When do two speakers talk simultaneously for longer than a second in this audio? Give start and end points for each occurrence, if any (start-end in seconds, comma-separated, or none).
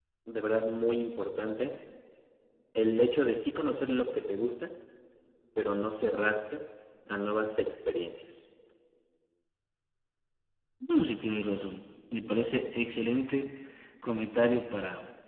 none